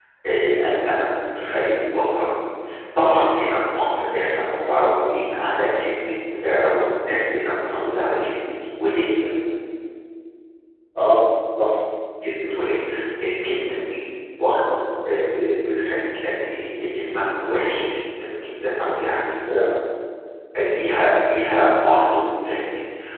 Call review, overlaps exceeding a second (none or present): none